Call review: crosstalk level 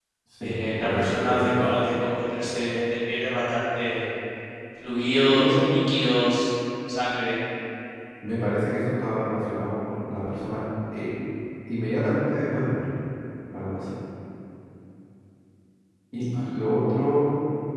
present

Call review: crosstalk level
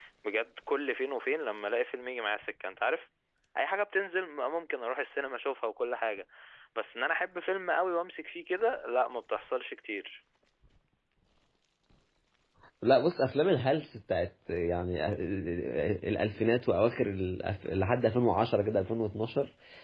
none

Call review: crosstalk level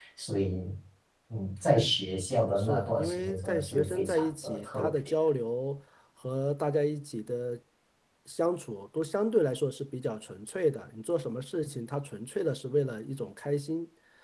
present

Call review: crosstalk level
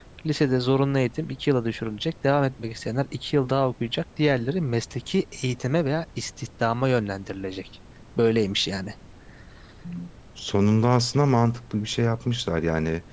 none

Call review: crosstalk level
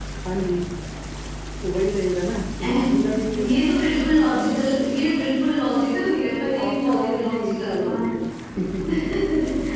present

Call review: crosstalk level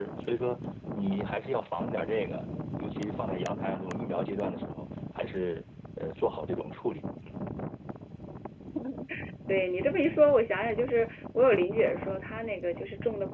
none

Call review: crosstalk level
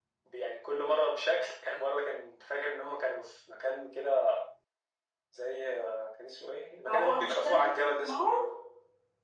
present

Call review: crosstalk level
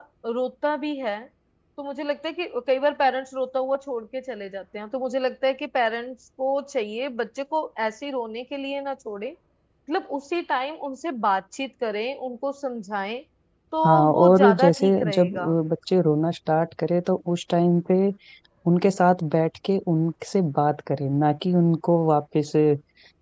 present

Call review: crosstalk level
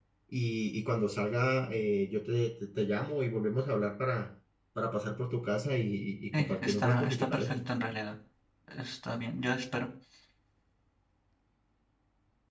present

